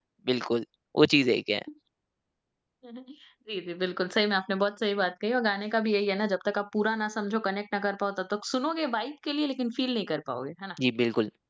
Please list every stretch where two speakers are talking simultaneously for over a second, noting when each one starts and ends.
none

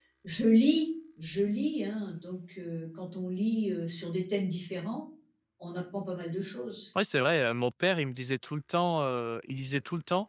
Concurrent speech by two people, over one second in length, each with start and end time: none

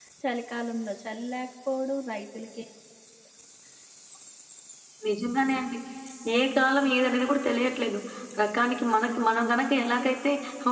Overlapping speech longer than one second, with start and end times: none

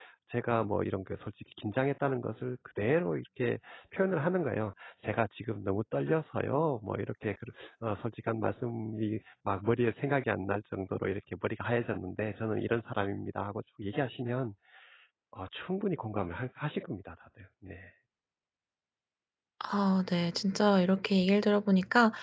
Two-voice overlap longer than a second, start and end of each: none

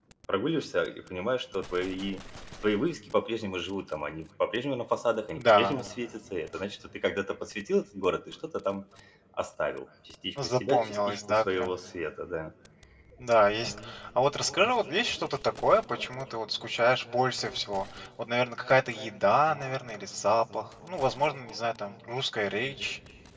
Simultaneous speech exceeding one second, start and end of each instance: 10.4-11.8

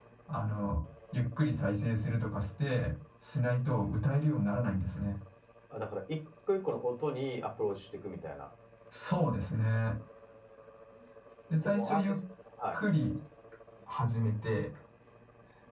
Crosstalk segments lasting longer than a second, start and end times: none

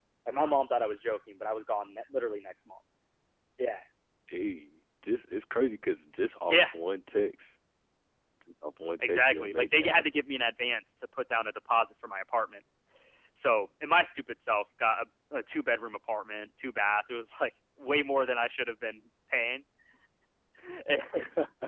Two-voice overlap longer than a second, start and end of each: 9.0-10.2

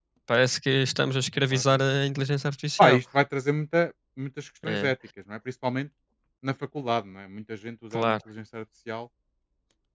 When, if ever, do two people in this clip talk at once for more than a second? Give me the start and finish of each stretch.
none

